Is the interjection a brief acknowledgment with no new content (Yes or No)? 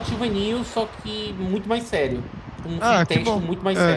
No